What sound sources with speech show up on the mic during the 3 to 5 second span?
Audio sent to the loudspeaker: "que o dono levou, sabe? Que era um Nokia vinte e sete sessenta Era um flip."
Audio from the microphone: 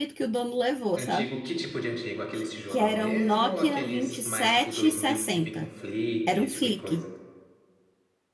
both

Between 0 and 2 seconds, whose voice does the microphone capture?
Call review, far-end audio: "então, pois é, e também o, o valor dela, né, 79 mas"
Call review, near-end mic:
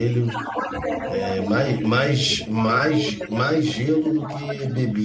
both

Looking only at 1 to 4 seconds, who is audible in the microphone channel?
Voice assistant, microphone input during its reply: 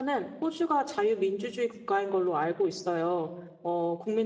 user only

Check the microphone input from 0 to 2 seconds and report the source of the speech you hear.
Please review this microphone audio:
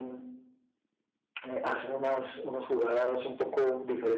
echo only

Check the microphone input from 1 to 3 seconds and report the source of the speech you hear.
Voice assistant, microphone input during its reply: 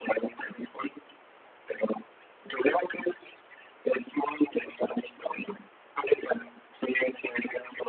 echo only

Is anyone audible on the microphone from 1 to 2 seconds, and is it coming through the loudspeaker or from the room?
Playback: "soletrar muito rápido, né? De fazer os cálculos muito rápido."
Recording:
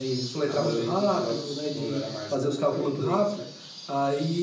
both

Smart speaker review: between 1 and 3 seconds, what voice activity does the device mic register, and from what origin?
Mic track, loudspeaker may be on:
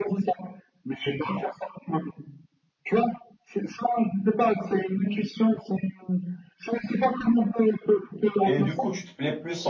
echo only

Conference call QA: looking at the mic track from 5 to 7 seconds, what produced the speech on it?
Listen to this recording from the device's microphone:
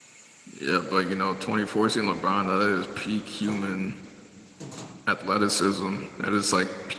user only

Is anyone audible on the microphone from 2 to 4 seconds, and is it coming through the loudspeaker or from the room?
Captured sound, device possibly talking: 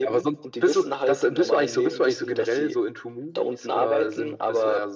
echo only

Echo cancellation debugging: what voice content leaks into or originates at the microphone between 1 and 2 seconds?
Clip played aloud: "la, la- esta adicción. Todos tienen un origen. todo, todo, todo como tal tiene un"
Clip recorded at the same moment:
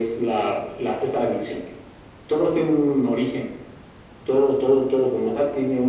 echo only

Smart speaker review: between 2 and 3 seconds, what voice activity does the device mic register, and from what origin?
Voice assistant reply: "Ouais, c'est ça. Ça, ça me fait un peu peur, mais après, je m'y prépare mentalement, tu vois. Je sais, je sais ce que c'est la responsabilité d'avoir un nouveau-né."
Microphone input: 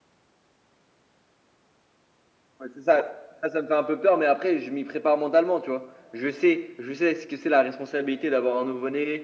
echo only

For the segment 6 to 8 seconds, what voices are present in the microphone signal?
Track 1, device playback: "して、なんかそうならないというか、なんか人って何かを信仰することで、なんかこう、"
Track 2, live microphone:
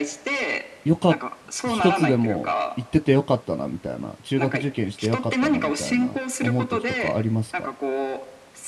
both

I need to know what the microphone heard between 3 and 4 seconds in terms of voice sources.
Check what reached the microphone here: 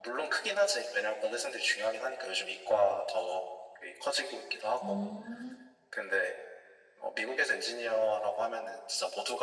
echo only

